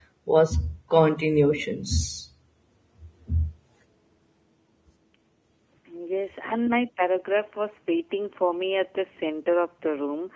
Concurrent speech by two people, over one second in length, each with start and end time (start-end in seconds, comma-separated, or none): none